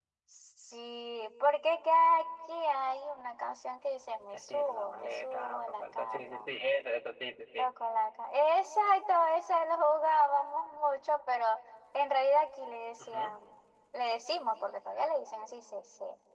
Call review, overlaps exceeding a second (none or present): present